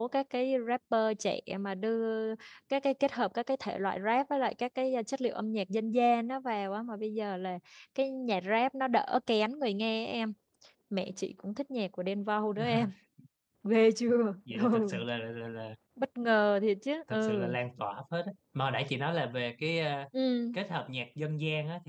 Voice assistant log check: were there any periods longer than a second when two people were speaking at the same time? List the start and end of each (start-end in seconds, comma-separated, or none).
none